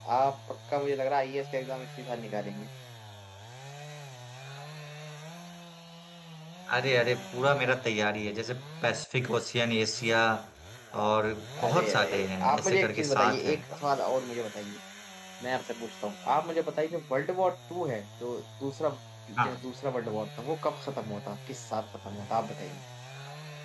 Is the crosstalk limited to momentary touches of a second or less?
No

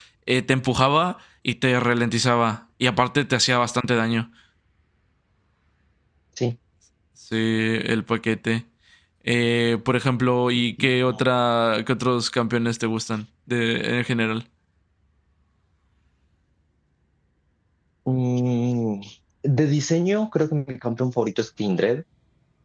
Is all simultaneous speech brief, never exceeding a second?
Yes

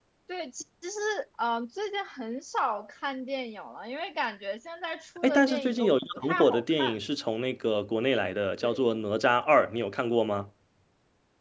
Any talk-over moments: Yes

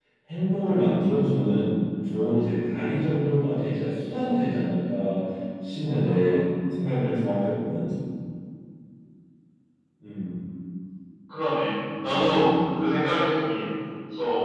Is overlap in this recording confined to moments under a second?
Yes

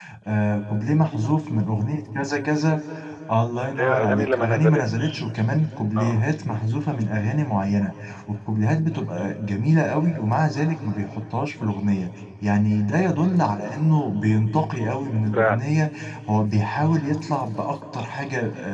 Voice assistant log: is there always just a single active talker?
No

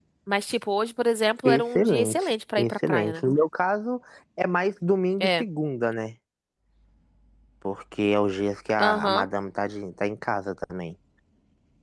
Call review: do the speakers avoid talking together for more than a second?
No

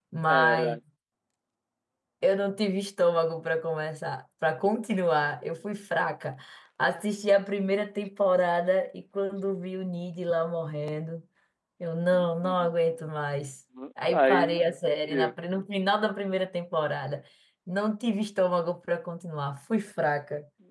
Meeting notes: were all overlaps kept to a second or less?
No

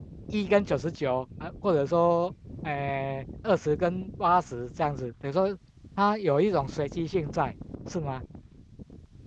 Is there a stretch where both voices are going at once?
No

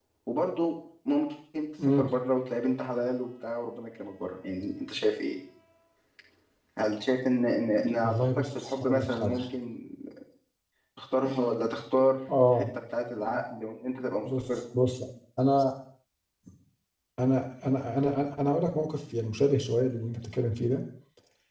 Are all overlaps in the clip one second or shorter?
No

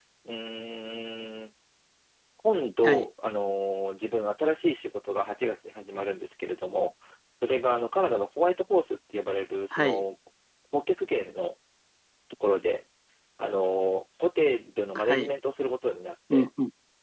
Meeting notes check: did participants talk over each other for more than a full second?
No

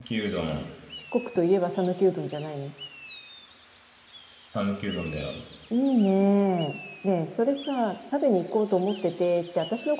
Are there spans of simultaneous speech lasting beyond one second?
No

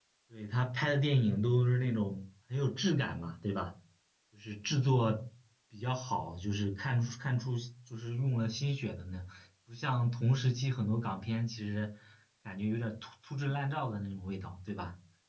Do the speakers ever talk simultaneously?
No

